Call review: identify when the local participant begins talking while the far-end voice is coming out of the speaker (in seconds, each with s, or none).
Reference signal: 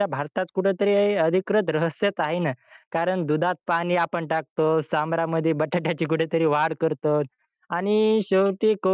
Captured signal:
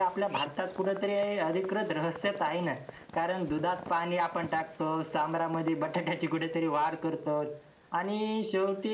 none